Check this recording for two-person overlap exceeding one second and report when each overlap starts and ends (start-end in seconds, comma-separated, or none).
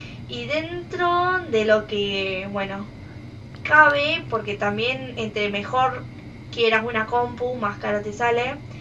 none